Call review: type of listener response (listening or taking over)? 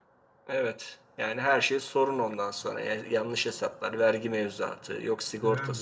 taking over